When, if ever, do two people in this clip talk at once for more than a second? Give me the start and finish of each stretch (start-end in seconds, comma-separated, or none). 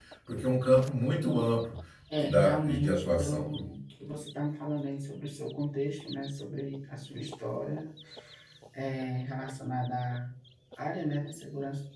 2.2-3.6